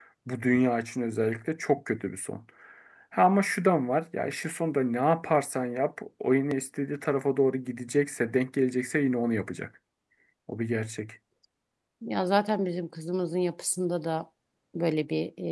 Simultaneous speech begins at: none

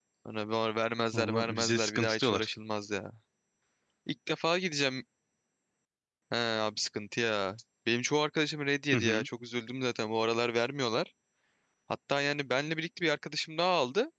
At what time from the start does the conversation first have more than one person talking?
1.1 s

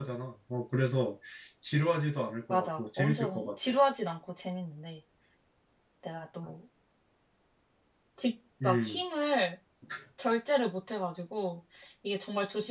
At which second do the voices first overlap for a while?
2.5 s

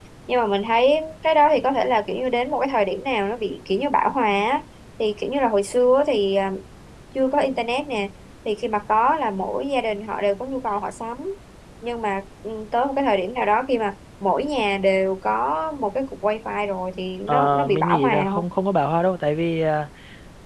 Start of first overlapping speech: 17.3 s

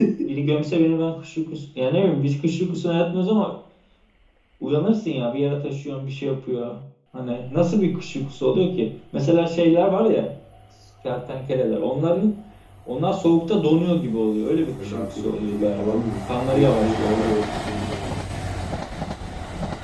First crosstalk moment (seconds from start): 14.8 s

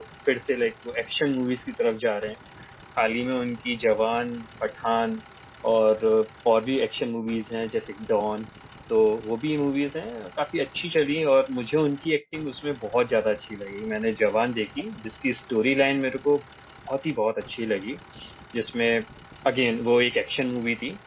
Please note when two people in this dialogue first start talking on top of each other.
none

